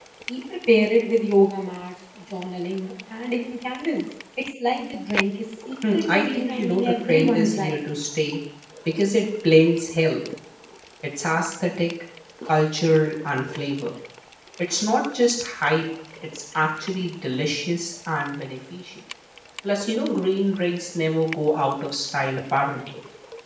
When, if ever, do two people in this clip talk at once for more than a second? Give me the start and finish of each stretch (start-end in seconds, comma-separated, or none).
5.9-7.8